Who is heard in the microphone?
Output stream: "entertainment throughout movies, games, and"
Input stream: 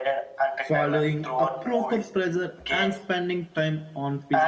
both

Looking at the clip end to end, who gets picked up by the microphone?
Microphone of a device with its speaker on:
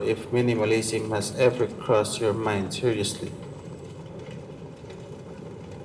echo only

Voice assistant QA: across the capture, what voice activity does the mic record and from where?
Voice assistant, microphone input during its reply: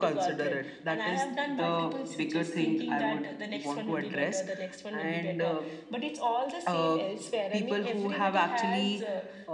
echo only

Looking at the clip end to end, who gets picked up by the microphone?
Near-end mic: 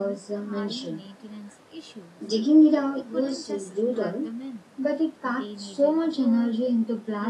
both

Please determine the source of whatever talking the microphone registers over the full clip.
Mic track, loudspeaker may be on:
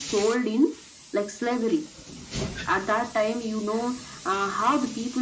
echo only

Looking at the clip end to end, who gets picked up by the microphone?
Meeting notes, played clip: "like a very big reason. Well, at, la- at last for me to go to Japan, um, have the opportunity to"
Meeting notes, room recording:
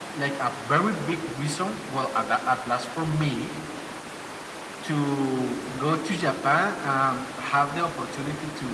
echo only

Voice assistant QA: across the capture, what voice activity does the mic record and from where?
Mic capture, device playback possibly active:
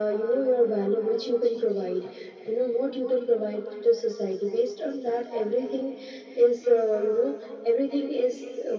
echo only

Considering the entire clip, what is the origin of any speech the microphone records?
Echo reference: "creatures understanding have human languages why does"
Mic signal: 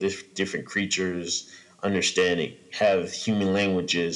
echo only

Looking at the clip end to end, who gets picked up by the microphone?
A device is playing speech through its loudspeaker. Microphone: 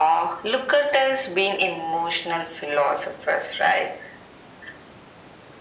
echo only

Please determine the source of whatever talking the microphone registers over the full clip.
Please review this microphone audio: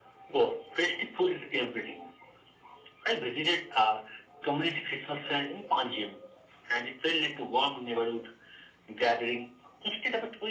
echo only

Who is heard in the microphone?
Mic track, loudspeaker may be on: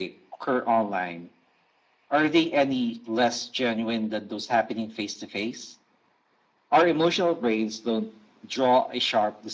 echo only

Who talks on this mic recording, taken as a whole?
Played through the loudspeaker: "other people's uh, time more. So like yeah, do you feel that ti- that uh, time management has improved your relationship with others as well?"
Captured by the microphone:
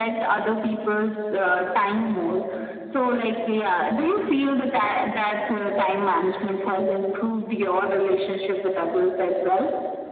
echo only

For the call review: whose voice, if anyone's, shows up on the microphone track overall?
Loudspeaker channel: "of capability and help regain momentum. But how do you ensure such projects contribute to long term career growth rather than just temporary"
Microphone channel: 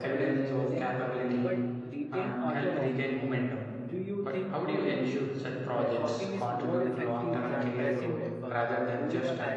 both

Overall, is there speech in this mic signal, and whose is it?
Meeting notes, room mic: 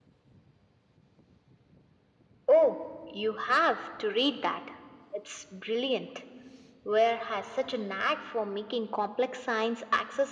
echo only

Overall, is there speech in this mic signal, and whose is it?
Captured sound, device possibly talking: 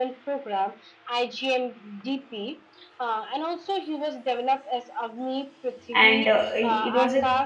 both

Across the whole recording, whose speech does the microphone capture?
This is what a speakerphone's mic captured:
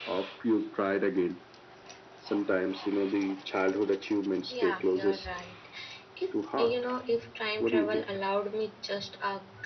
both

